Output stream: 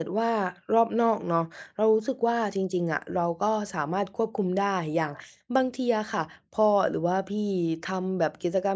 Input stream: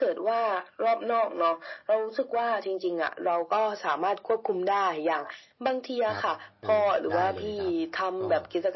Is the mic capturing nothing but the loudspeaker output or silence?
No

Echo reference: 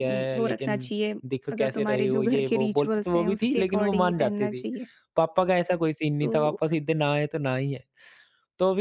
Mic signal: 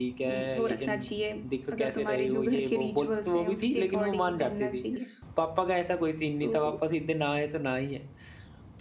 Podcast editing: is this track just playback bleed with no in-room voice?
Yes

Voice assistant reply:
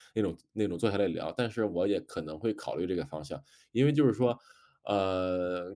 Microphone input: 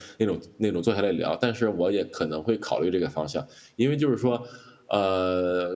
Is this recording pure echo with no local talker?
Yes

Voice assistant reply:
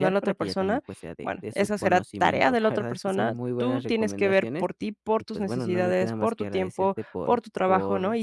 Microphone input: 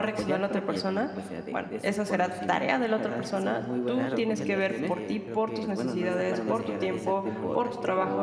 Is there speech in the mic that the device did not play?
Yes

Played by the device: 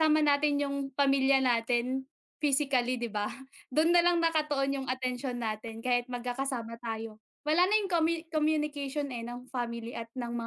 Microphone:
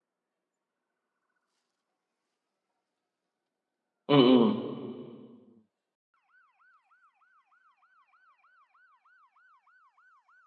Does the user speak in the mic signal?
Yes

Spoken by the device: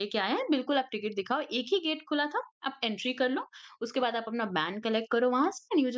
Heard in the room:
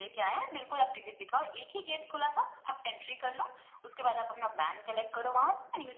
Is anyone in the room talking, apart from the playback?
No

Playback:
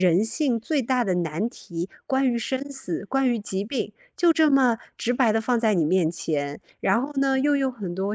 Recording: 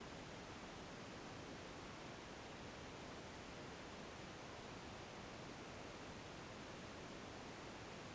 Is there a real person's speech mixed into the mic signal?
No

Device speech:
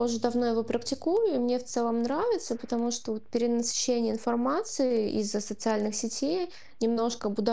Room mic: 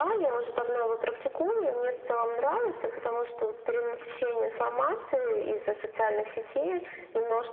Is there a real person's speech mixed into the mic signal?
No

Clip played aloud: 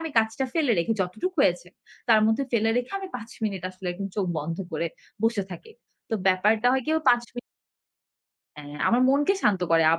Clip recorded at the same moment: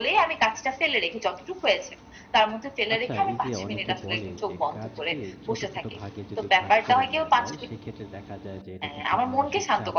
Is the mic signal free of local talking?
No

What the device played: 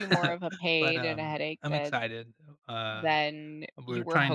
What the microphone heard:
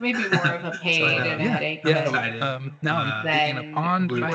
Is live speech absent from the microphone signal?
No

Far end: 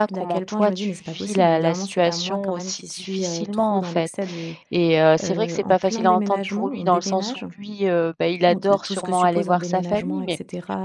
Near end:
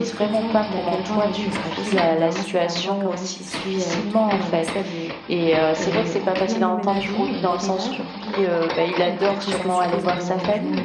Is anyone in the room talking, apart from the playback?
No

